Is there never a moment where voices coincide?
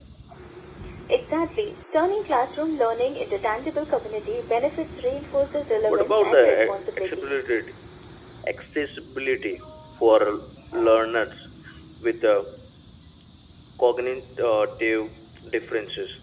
No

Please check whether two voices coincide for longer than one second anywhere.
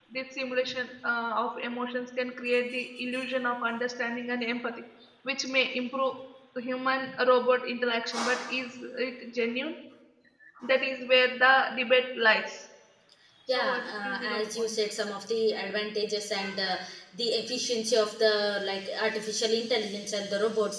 Yes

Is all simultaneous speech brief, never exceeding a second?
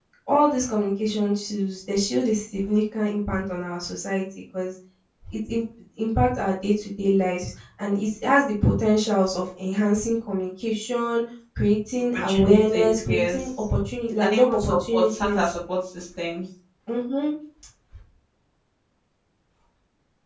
No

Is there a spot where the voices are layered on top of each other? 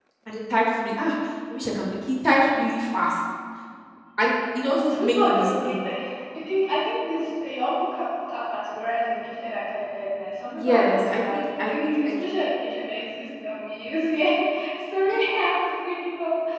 Yes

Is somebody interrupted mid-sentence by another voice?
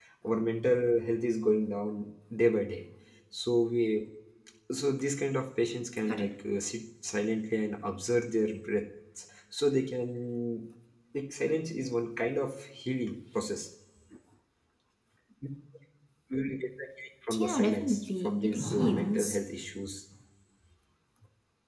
Yes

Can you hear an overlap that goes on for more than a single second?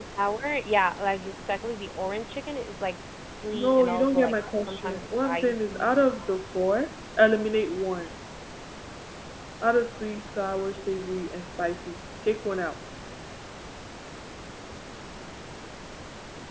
Yes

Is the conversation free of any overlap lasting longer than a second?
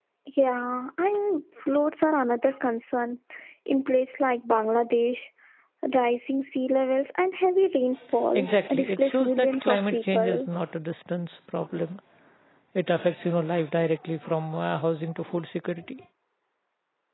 No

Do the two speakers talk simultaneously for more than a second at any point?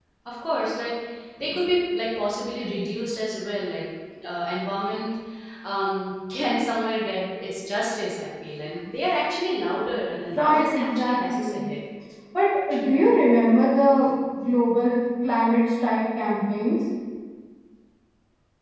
Yes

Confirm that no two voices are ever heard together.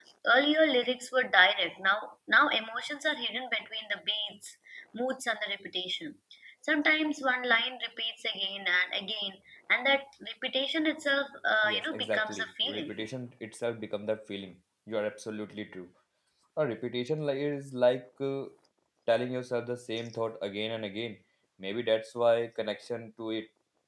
No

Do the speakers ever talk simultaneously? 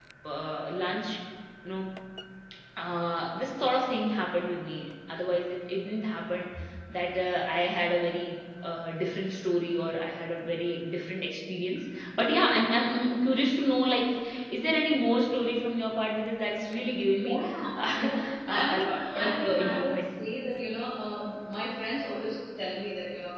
Yes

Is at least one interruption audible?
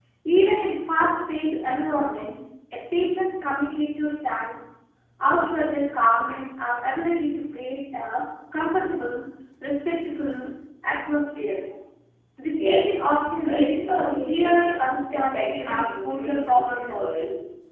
Yes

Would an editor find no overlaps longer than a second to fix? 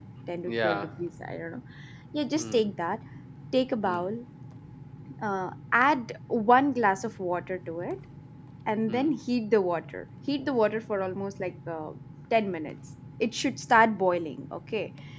Yes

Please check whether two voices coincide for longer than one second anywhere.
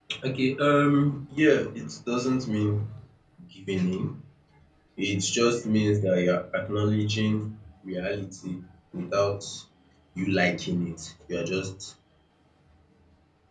No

